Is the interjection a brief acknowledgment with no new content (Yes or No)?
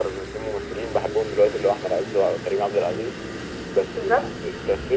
Yes